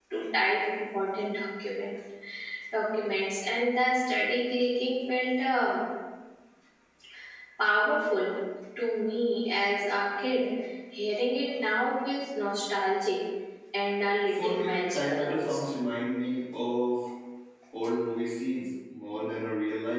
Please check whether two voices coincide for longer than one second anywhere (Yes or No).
Yes